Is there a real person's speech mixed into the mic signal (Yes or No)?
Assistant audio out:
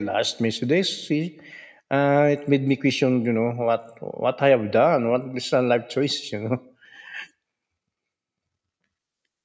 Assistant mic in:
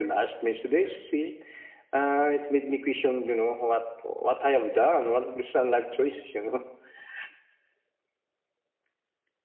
No